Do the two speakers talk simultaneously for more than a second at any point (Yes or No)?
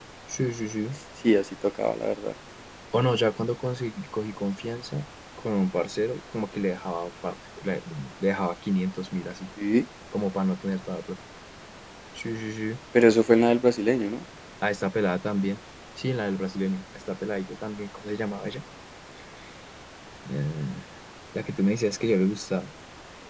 No